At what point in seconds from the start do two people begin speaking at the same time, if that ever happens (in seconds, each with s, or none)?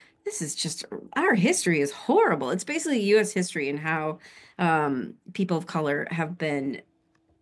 none